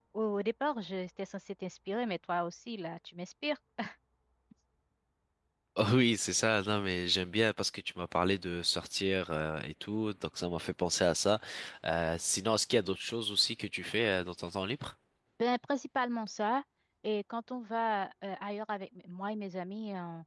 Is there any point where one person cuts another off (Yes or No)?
No